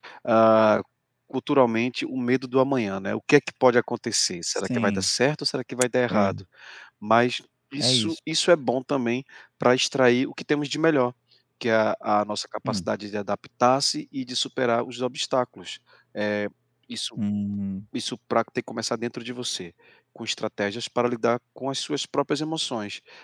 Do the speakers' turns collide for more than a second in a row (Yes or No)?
No